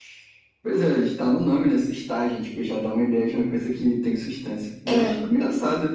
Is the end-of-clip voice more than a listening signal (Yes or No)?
No